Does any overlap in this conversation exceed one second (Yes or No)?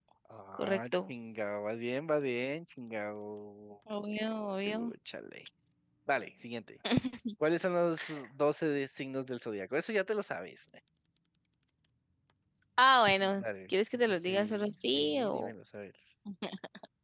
Yes